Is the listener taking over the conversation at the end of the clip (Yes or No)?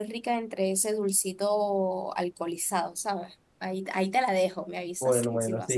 Yes